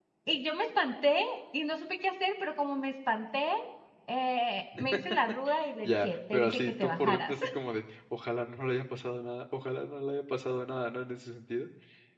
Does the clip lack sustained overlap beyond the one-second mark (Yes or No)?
No